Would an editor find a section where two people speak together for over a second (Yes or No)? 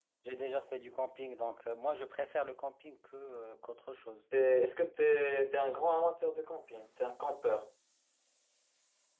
No